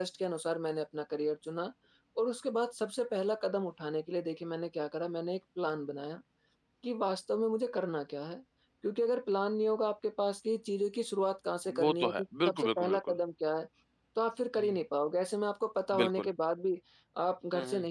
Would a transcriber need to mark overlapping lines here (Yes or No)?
Yes